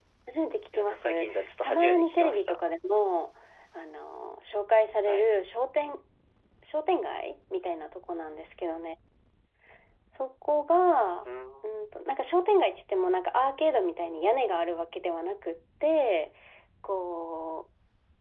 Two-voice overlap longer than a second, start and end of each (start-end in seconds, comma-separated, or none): 0.7-2.6